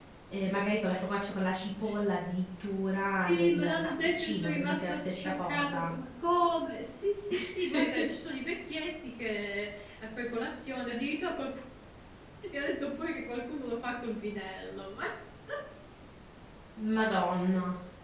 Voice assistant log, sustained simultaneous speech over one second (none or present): present